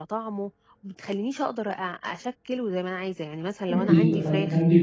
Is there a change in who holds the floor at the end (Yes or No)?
Yes